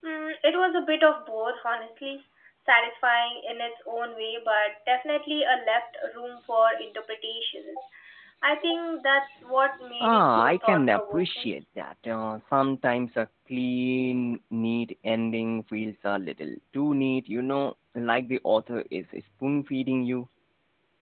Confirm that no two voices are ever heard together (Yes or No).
No